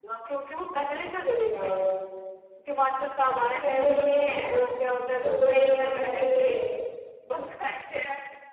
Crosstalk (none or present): present